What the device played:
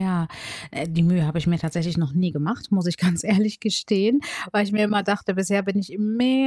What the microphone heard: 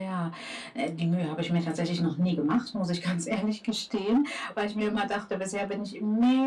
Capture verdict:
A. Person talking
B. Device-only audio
B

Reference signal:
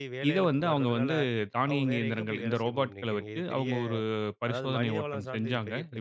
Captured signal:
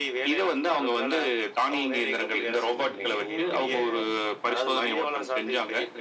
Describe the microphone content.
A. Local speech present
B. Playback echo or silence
A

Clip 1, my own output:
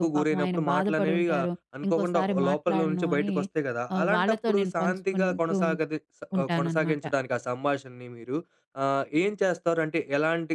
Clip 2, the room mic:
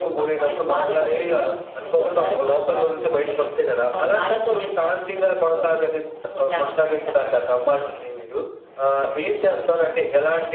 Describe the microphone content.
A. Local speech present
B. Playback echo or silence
B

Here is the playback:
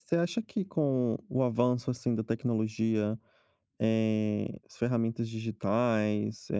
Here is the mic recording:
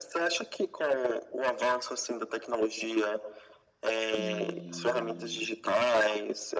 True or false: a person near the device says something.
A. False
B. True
B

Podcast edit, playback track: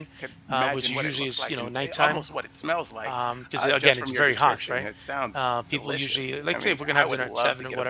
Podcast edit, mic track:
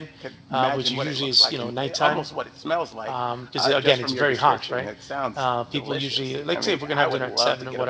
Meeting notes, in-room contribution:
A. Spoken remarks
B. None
B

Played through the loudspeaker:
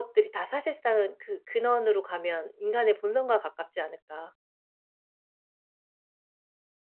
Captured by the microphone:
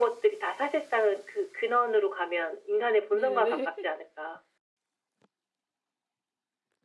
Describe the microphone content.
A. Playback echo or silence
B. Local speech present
B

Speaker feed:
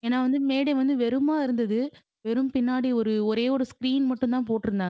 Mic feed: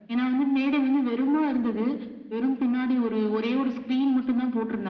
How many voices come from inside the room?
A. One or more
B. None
B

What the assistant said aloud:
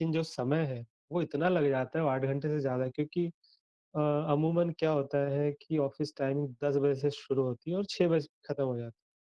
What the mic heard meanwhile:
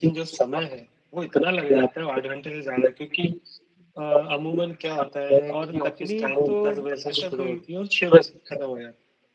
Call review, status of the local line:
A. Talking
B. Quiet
A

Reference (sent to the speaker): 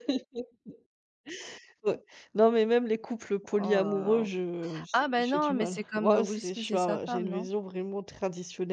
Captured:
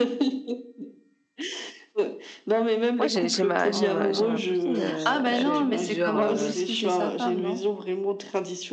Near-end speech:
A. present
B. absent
A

